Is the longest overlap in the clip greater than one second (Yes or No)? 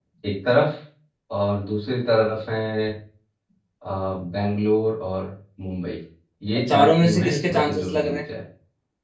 Yes